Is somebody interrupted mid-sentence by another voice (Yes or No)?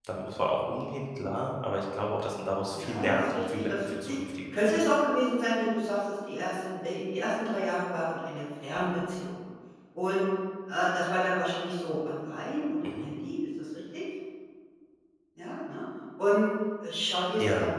Yes